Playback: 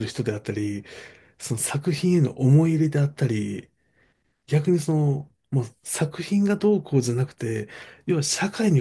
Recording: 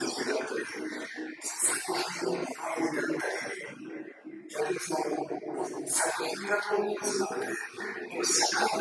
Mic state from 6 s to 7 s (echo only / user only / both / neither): echo only